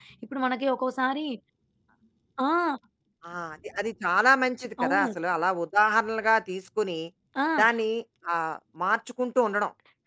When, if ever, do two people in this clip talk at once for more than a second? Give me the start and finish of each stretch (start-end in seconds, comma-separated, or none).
none